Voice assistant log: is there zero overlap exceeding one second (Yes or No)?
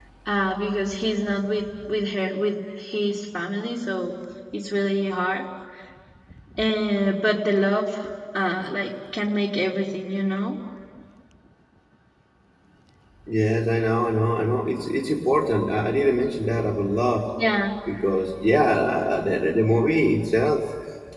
Yes